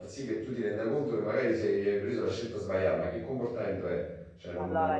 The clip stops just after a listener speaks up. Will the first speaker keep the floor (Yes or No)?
No